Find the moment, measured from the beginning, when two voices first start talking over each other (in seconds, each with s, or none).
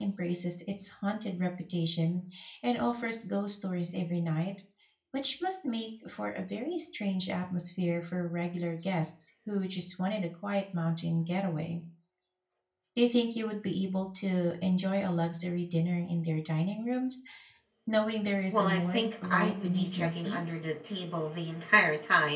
18.5 s